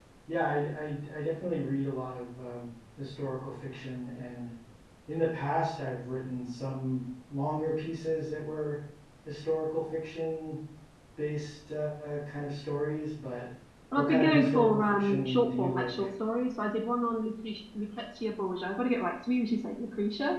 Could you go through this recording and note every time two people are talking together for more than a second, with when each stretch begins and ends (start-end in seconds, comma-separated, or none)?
13.9-16.1